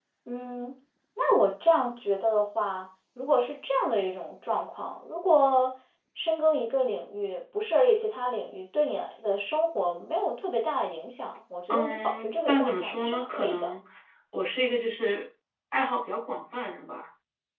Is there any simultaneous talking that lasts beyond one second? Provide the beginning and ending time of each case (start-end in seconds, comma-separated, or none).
11.7-13.7